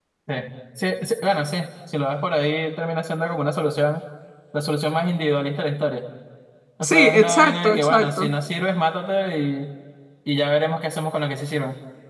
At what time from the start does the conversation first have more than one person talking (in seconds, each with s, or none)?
6.8 s